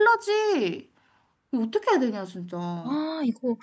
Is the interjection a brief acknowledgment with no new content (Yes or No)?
Yes